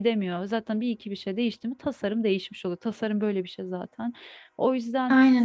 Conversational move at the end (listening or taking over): listening